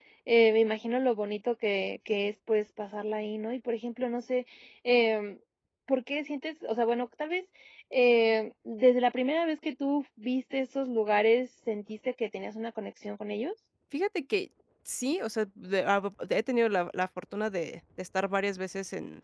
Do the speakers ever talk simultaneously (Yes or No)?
No